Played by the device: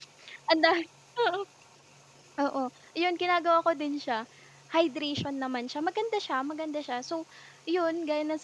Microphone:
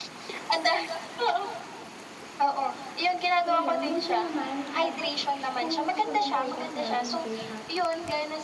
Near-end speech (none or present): present